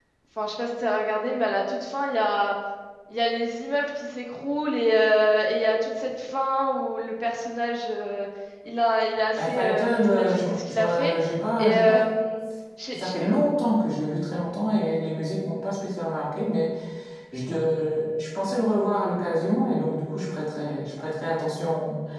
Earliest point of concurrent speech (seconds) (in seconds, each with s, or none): 9.4 s